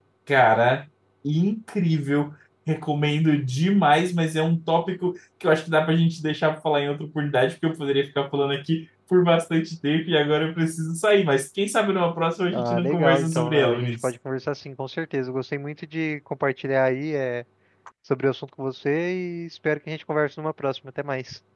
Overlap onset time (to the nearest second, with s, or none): 13 s